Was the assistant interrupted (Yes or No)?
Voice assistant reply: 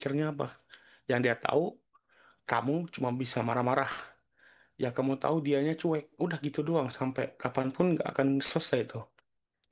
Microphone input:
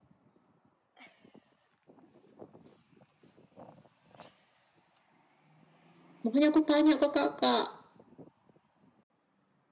Yes